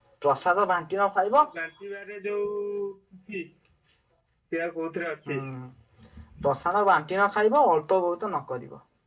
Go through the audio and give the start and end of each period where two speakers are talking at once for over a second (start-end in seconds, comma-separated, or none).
none